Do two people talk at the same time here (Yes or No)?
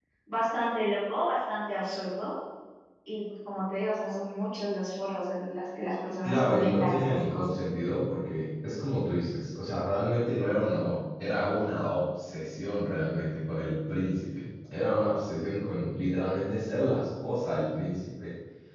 Yes